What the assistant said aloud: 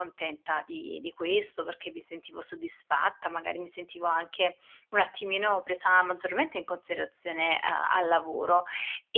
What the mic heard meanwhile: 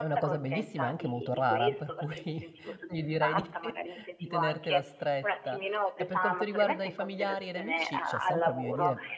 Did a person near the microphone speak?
Yes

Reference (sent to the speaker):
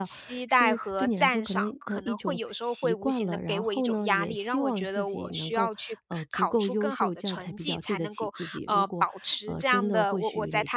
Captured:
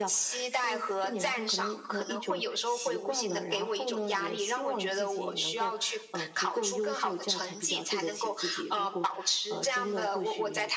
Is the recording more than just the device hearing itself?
No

